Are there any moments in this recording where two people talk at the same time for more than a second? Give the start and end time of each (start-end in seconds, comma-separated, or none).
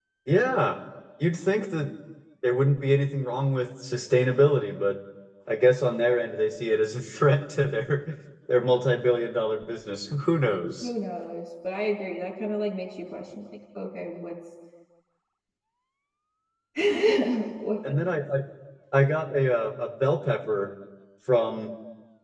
none